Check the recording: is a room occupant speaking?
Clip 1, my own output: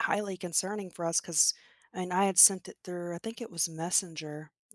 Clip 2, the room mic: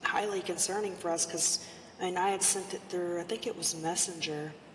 No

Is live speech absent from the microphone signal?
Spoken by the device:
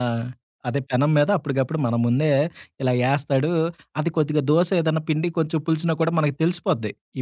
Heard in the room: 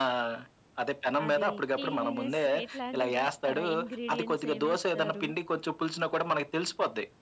No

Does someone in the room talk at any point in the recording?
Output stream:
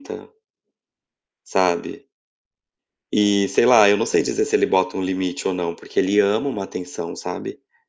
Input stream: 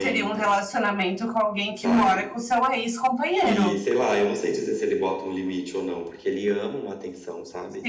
Yes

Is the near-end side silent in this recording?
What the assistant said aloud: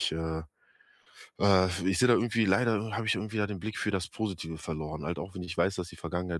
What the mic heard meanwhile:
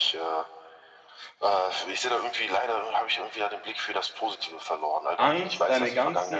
No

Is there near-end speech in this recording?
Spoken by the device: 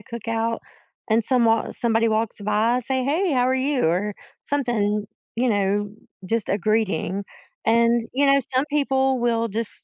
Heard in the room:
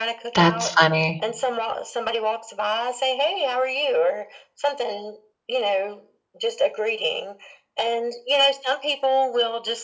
Yes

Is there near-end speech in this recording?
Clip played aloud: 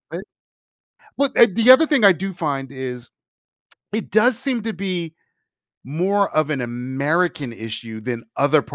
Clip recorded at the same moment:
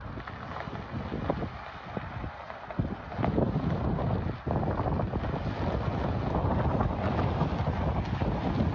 No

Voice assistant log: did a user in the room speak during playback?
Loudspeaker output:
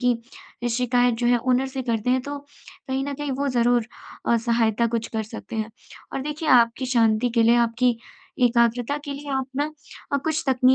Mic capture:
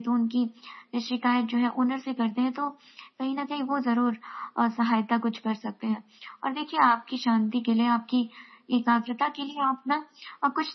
No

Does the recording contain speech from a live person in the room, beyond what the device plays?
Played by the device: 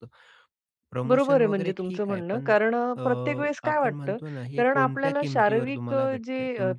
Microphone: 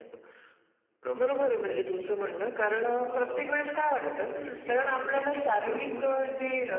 No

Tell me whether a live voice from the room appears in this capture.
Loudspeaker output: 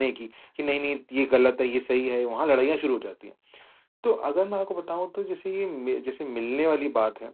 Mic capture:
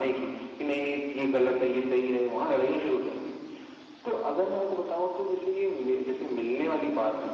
No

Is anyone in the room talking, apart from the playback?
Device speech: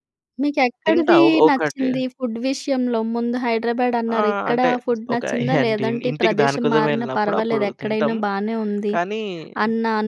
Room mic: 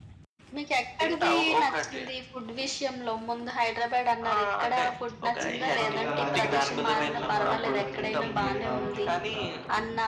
Yes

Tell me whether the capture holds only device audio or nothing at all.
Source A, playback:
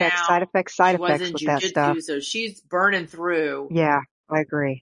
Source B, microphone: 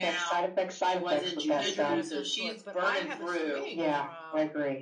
No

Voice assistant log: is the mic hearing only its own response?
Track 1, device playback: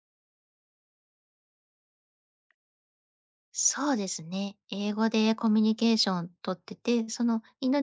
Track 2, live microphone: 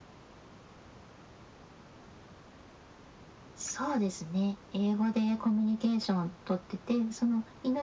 Yes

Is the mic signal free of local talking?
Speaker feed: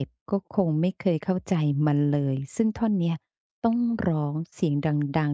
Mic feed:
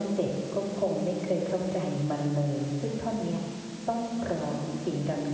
Yes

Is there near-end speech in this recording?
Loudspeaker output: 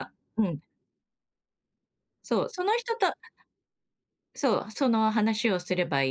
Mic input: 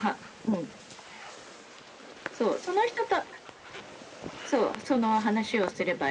No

